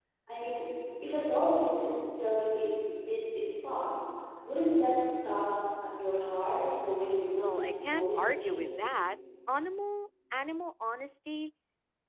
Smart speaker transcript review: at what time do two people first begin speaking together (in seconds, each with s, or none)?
7.4 s